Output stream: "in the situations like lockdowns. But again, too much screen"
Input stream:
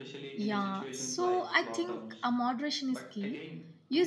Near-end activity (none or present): present